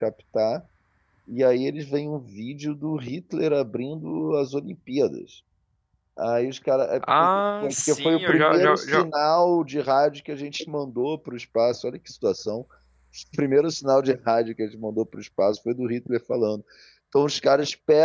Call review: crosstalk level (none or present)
present